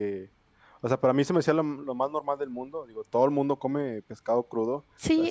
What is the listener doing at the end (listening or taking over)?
listening